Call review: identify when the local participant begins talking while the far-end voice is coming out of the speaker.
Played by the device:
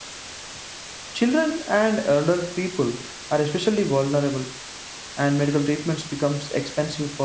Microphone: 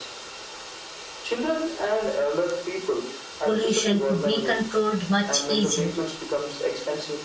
3 s

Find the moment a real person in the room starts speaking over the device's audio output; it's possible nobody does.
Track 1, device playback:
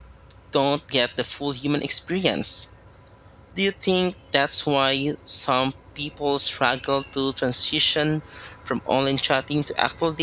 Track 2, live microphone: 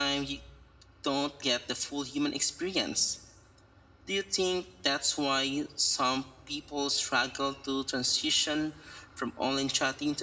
none

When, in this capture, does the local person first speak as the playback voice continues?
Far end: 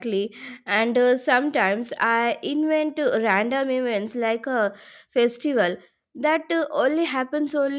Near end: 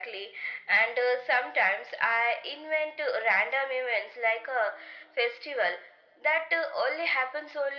none

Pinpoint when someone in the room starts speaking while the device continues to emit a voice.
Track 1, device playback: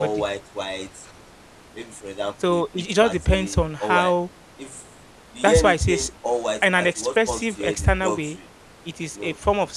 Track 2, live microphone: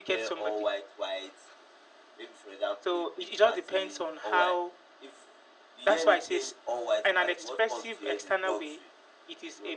none

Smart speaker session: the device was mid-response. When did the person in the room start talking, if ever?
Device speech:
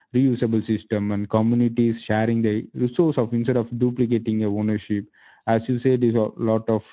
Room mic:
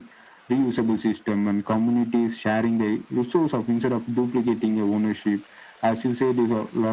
none

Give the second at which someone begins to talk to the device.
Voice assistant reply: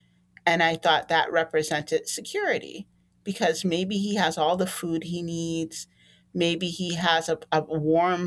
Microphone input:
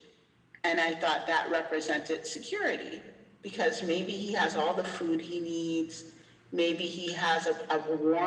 none

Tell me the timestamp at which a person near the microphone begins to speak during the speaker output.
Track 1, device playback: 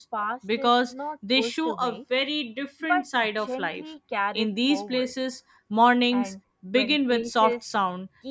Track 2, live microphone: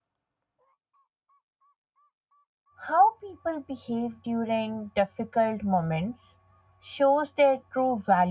3 s

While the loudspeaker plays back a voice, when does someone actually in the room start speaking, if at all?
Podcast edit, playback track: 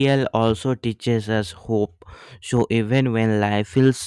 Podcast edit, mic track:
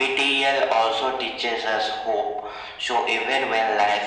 none

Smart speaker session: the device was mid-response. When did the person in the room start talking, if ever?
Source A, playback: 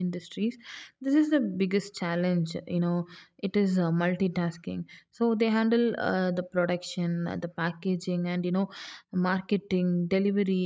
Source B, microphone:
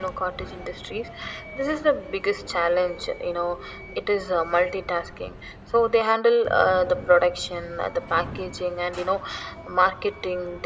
none

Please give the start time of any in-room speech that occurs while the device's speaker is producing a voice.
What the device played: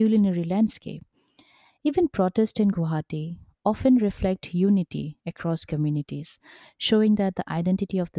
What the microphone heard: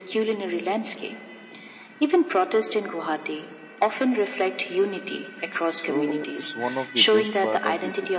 6 s

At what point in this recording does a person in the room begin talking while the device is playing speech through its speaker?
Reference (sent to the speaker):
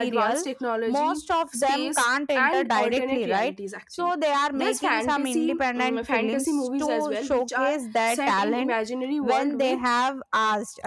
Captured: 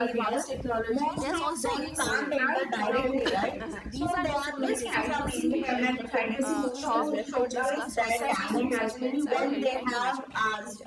1 s

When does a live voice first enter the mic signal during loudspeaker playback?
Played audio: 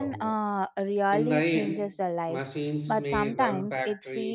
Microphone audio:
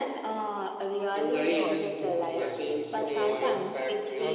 1 s

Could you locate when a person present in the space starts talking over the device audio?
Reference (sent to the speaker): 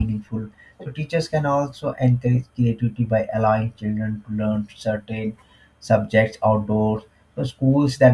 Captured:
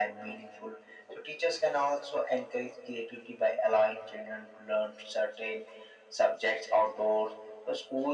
none

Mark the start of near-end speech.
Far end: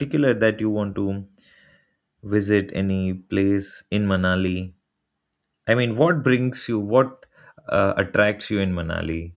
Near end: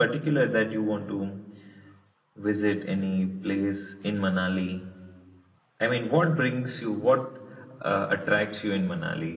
none

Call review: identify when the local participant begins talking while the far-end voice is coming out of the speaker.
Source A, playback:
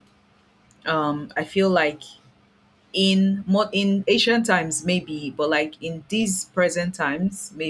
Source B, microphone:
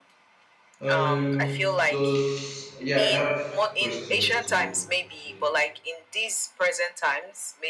1 s

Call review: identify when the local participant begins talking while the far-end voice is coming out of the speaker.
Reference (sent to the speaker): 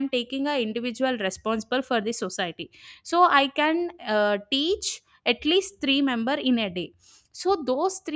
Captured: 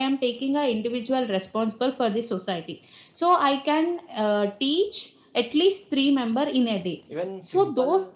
7 s

